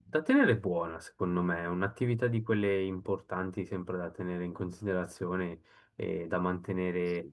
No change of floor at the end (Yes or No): Yes